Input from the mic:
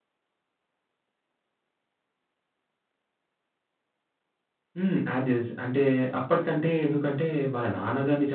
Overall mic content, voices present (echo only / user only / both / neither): user only